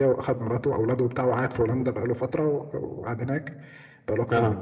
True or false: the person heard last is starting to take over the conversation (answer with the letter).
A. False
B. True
A